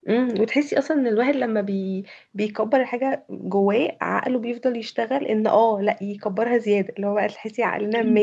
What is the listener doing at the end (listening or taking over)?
listening